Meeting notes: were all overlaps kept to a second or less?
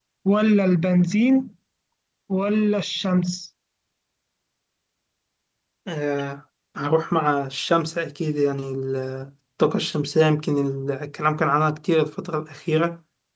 Yes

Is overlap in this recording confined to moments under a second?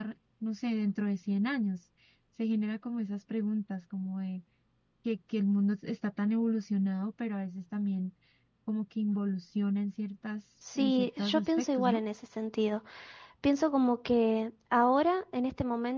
No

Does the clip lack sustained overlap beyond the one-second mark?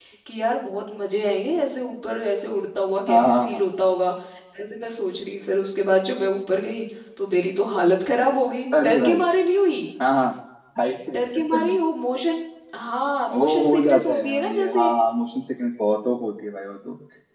No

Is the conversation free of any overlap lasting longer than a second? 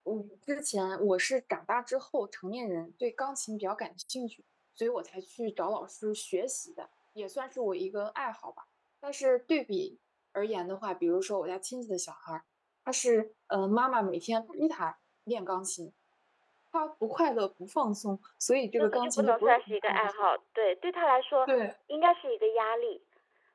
No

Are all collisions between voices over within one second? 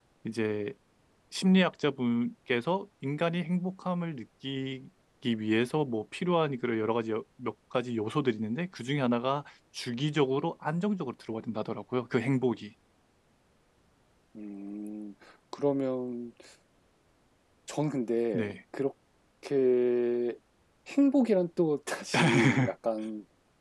Yes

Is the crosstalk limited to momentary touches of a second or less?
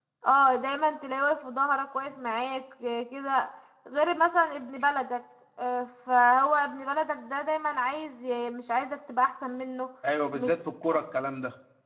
Yes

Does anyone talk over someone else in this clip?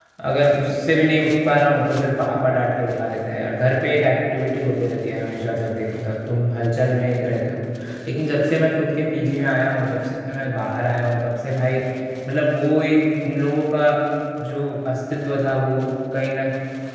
No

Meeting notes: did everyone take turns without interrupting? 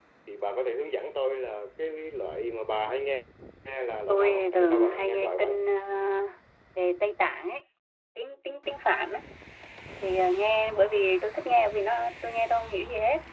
No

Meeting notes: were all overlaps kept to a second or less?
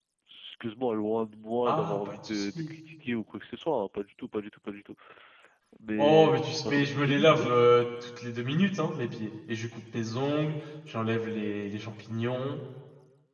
No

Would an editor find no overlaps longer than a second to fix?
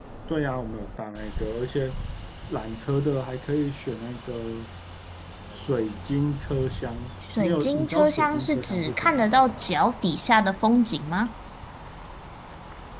No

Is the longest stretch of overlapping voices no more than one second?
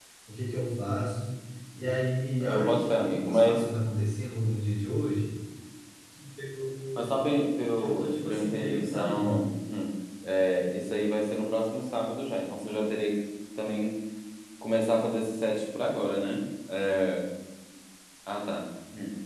No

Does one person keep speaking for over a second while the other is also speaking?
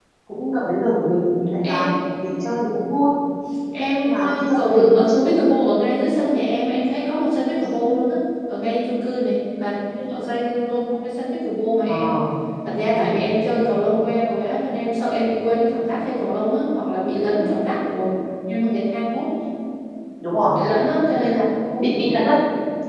Yes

